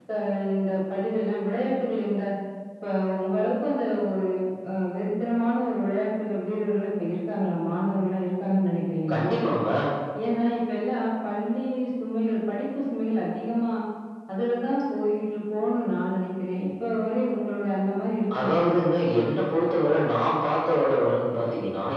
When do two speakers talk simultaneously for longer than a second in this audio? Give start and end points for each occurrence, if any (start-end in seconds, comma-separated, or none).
none